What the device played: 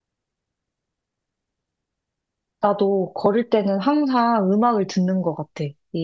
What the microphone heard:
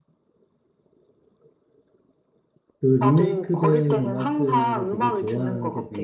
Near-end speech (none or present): present